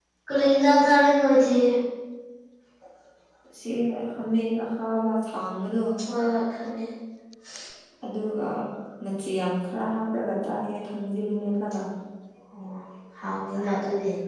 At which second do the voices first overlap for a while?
none

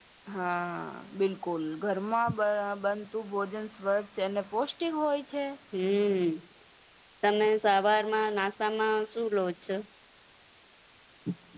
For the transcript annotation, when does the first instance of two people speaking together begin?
none

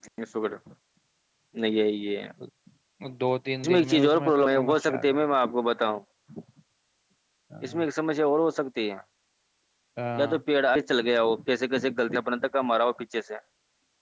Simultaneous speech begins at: 4 s

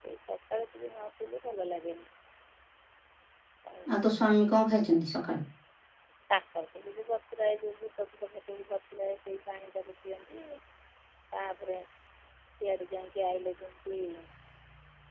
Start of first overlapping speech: none

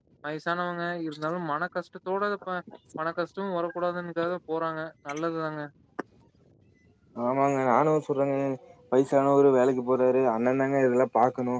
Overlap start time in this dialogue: none

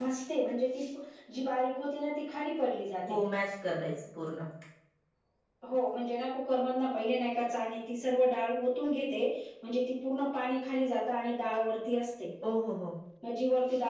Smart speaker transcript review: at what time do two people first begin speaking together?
none

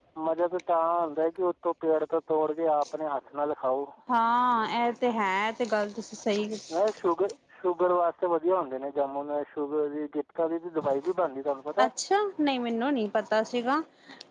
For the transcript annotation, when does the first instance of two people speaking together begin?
none

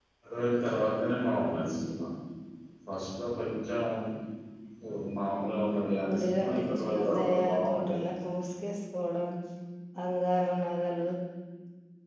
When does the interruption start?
6 s

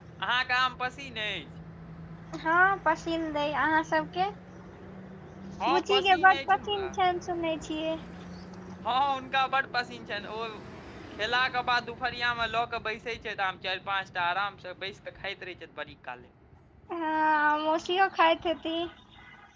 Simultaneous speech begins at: 6 s

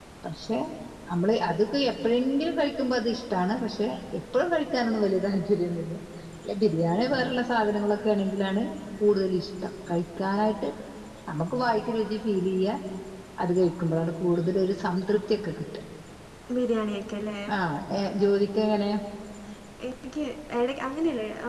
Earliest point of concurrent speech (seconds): none

